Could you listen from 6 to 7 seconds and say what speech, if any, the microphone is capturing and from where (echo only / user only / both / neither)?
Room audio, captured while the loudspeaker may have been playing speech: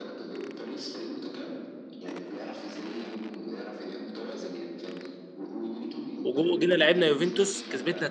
both